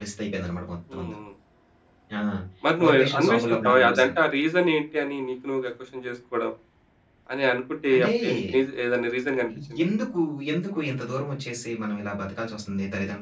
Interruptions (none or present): present